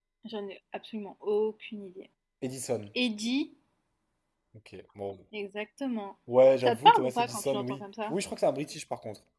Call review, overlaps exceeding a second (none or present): present